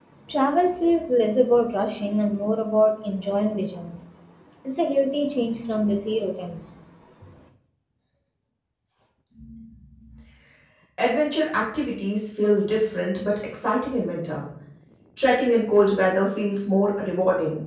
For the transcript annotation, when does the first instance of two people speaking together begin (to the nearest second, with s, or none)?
none